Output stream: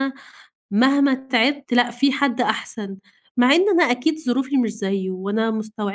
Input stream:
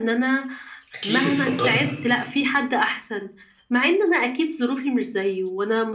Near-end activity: present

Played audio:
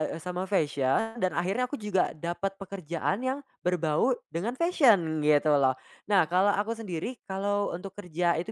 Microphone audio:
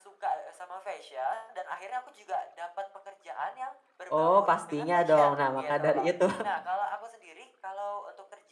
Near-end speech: present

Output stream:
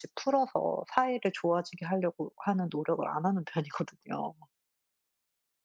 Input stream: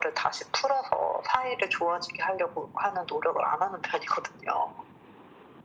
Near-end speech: none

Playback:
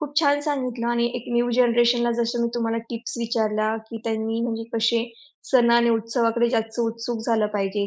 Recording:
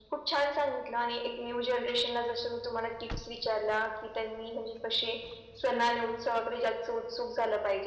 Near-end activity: none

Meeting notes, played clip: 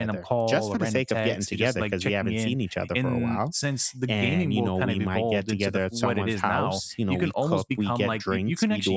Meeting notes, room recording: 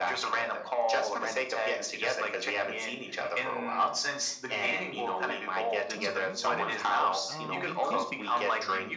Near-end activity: present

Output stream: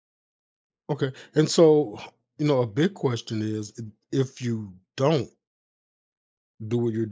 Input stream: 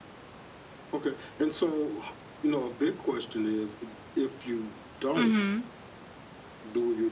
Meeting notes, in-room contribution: present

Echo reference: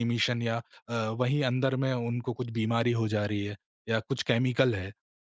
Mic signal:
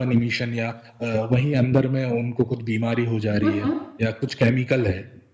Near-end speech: present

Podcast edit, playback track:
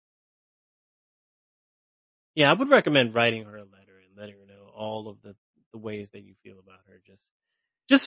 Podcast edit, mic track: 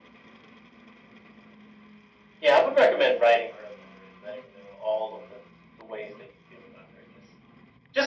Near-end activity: none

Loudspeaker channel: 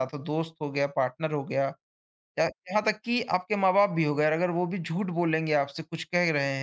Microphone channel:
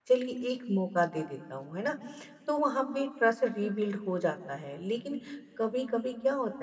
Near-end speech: present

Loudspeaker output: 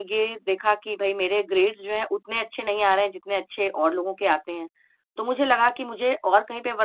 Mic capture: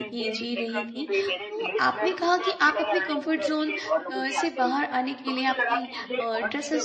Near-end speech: present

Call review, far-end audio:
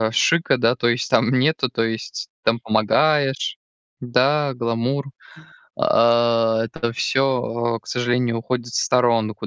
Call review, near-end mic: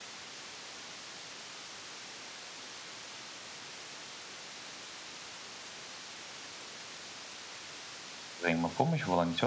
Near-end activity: present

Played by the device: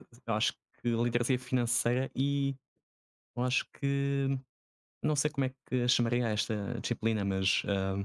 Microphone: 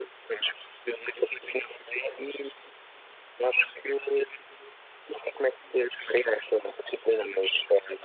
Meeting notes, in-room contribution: none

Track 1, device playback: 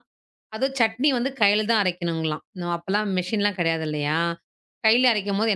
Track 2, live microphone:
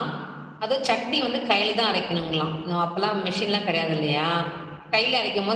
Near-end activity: none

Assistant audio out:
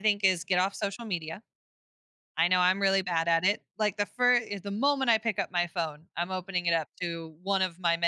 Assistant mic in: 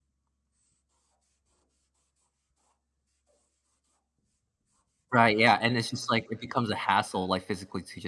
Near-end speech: present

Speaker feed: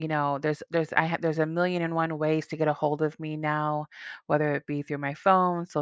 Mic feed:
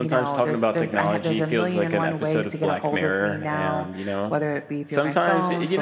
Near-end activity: present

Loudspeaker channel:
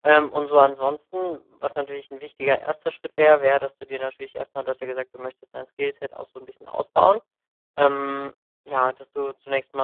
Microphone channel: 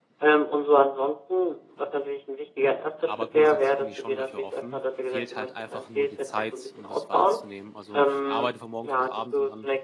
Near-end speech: present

